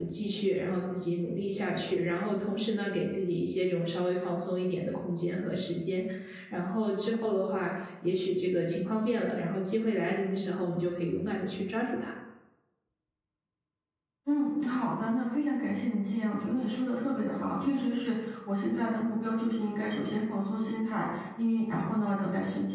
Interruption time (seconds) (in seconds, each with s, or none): none